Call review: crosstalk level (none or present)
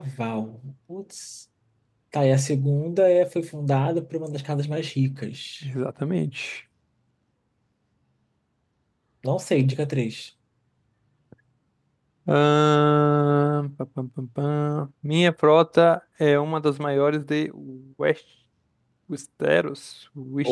none